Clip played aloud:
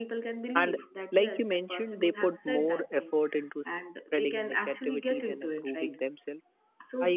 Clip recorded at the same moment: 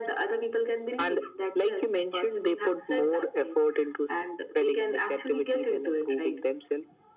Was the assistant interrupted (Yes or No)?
No